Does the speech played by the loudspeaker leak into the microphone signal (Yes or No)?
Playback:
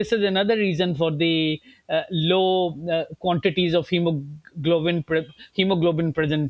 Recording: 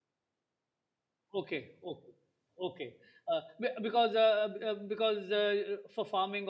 No